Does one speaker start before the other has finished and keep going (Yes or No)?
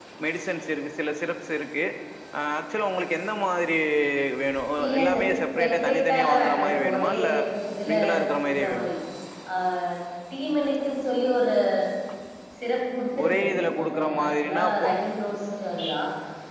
Yes